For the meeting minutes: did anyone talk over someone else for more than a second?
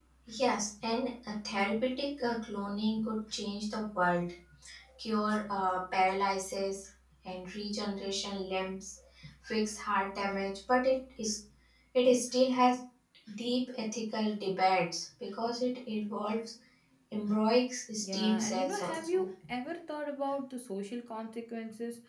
Yes, from 18.0 s

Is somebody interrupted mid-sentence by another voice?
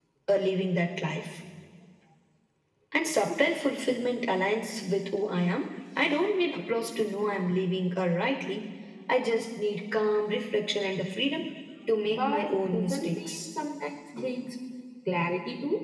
Yes, from 12.2 s

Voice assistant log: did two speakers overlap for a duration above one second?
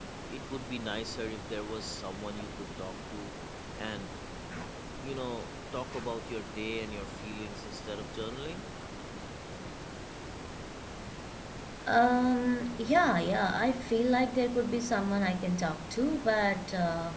No

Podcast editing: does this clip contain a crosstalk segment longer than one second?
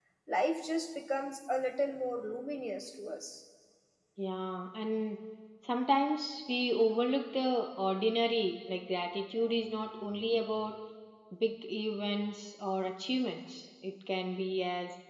No

